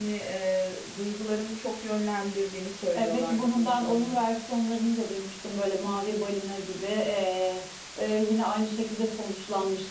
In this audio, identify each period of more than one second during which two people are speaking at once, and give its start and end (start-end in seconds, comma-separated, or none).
3.0-4.2